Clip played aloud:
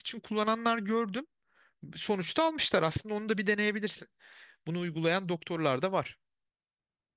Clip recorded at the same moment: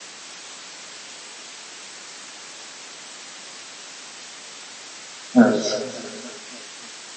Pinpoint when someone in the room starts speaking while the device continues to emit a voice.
5.4 s

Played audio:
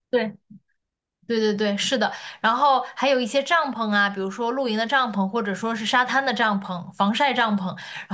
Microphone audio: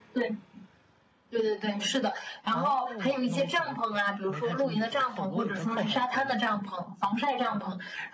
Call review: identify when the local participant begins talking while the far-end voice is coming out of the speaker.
2.5 s

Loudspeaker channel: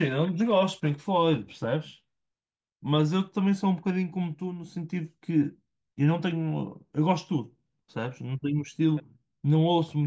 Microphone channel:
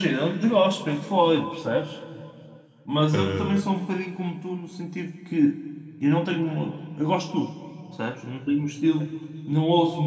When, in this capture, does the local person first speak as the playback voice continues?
3.1 s

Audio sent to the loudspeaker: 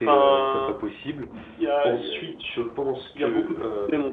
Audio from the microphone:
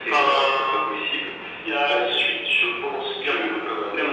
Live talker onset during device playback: none

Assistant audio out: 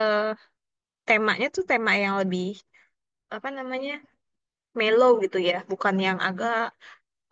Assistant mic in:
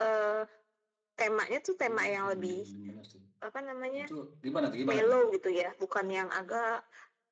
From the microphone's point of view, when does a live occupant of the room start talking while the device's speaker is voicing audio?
1.9 s

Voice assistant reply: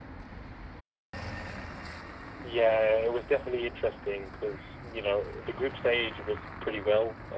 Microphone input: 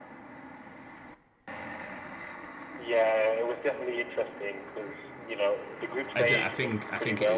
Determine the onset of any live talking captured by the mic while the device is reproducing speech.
6.2 s

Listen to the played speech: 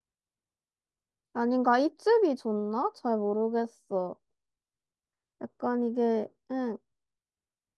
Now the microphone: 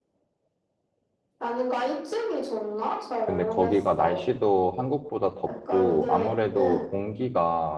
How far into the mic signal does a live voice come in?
3.2 s

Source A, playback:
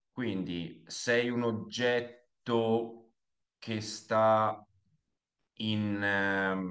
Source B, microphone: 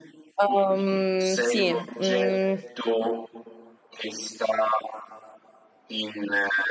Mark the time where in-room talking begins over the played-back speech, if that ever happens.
0.4 s

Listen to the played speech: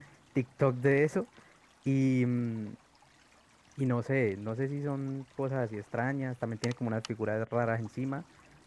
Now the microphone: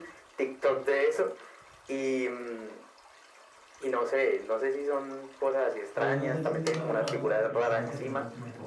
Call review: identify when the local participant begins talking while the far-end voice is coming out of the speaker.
5.9 s

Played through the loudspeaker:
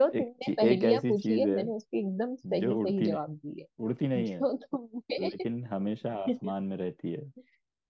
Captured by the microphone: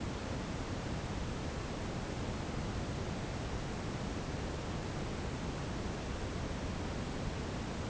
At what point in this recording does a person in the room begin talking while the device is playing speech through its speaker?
none

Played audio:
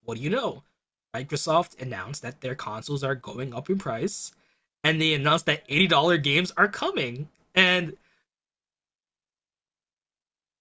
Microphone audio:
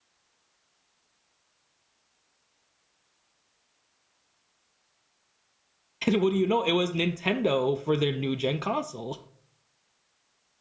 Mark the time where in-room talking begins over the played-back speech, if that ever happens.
6.1 s

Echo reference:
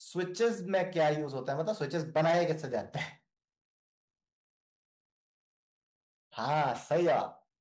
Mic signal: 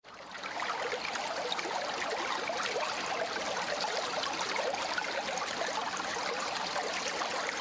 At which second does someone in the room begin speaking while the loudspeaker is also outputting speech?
none

